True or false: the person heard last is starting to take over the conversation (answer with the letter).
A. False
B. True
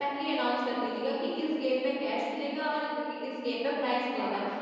A